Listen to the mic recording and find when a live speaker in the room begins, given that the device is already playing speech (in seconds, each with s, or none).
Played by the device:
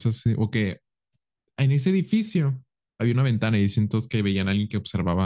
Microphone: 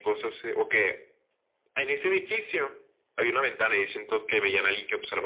none